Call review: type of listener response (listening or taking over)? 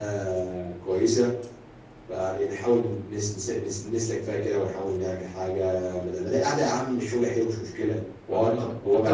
taking over